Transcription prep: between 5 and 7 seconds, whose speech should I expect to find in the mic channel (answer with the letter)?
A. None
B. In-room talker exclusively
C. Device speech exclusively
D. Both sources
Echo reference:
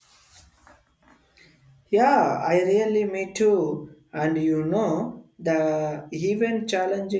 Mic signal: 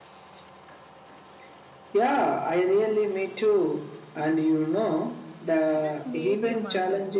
D